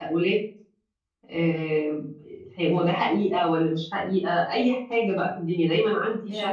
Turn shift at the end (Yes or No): Yes